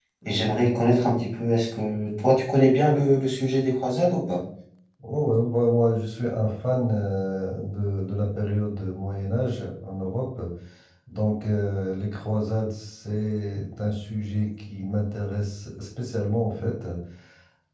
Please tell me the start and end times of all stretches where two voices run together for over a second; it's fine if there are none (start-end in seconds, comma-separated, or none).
none